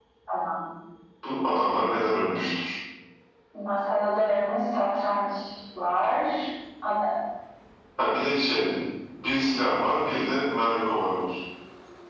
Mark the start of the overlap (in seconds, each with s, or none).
none